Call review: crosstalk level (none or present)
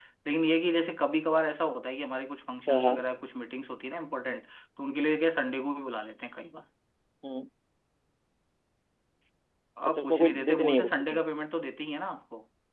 present